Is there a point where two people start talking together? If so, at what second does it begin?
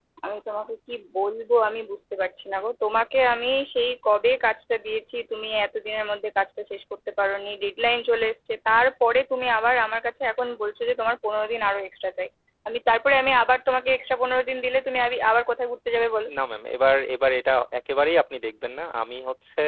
none

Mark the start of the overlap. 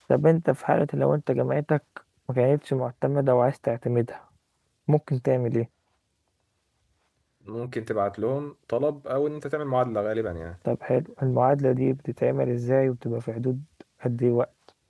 none

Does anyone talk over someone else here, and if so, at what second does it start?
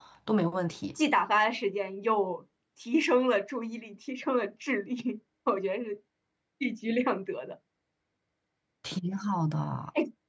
none

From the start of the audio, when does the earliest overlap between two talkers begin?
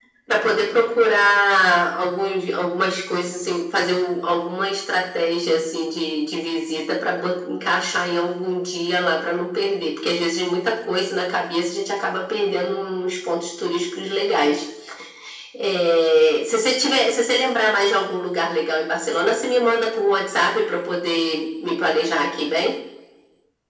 none

